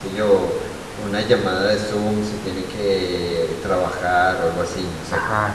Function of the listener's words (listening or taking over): taking over